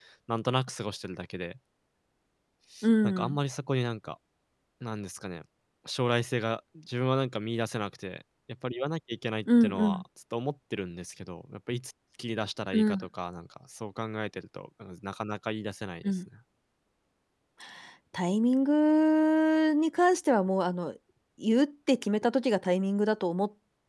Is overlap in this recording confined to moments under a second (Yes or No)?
Yes